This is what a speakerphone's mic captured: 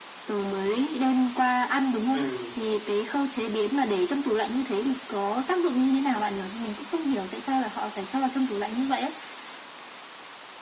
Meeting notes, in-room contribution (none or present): present